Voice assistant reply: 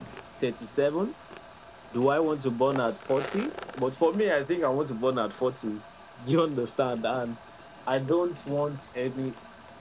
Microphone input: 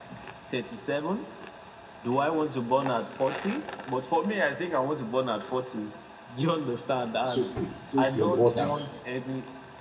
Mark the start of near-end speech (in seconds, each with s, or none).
7.2 s